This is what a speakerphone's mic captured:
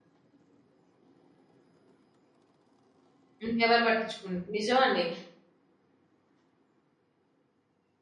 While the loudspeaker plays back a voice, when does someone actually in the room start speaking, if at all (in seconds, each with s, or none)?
3.4 s